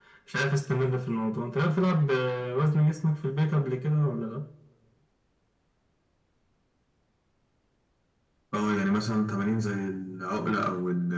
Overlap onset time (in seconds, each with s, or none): none